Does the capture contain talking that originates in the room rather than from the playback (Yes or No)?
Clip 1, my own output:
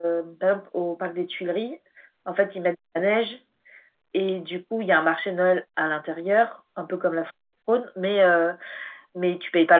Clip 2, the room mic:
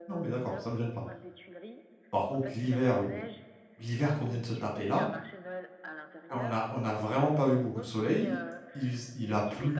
Yes